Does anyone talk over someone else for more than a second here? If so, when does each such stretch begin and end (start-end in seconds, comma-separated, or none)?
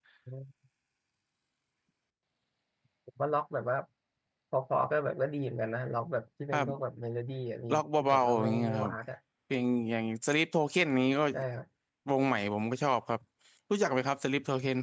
7.7-8.9